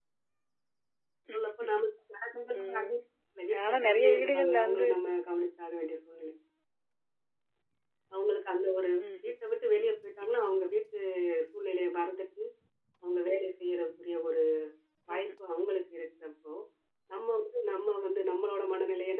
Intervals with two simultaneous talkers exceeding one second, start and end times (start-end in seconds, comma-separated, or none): 3.7-4.9